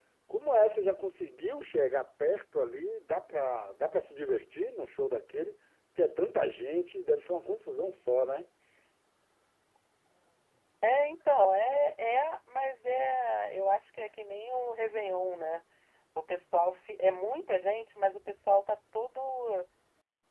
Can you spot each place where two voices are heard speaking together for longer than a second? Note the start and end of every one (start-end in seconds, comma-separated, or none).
none